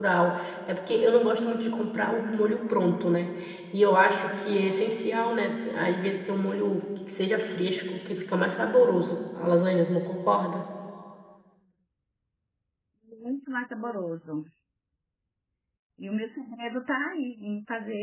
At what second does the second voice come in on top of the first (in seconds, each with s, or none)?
none